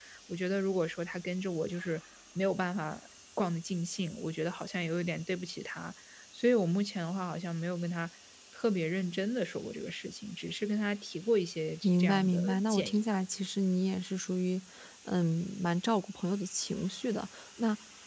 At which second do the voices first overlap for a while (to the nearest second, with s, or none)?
12 s